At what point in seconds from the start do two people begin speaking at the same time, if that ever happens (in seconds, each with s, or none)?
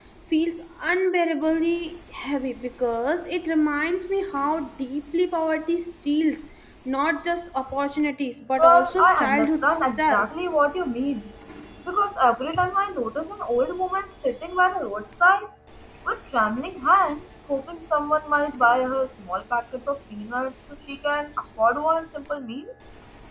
8.6 s